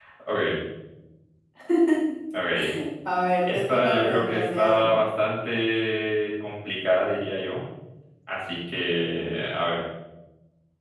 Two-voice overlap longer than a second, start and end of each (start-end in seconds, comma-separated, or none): 3.4-4.9